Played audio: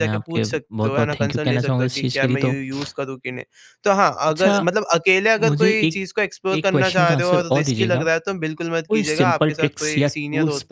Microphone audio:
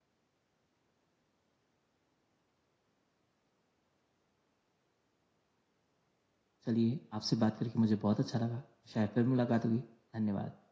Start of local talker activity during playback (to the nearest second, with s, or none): 7 s